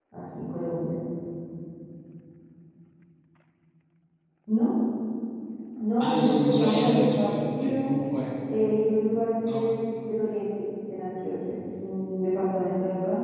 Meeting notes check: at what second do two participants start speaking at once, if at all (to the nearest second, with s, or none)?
6 s